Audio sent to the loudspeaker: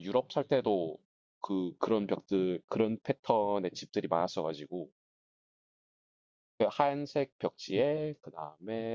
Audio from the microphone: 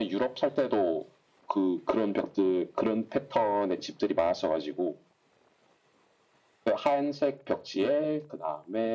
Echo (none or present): present